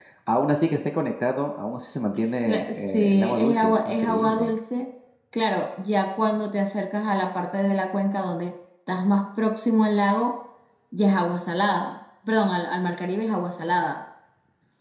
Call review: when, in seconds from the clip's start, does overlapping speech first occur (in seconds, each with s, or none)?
2.5 s